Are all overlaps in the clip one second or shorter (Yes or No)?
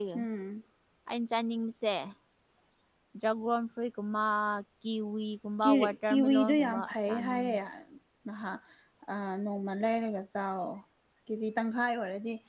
No